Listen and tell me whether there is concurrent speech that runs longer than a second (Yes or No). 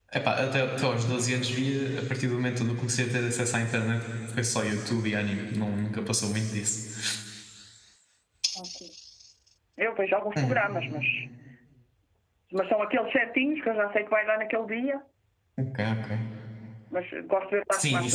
No